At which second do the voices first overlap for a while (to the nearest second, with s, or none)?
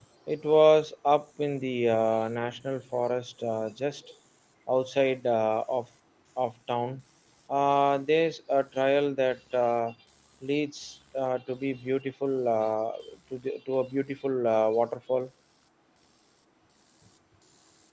none